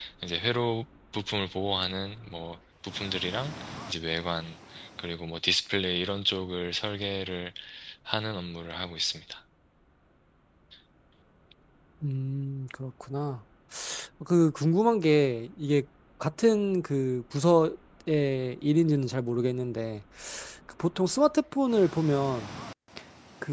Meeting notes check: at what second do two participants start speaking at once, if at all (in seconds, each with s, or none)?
none